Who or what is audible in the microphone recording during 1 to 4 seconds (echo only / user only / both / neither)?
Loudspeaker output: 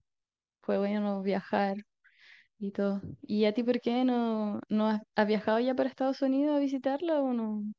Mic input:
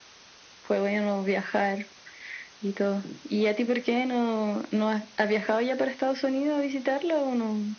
echo only